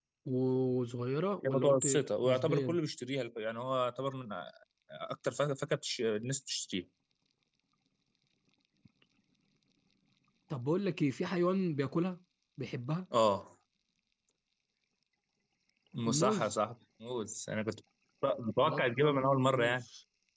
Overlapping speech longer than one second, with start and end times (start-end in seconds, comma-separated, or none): 1.4-2.8, 18.6-19.8